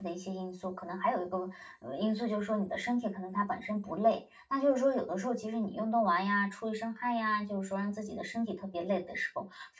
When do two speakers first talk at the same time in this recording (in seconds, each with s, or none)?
none